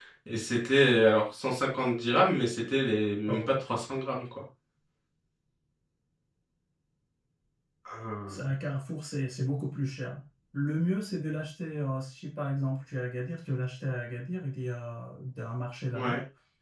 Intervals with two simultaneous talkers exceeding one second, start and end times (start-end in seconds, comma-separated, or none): none